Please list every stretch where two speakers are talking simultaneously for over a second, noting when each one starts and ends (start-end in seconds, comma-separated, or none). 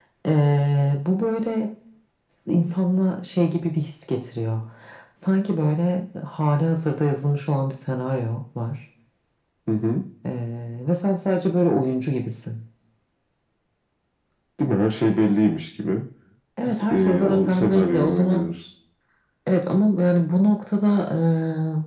16.6-18.5